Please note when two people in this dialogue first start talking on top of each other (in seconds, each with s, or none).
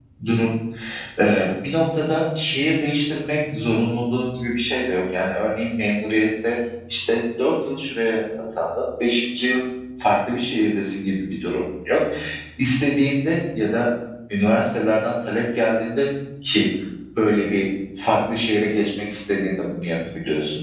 none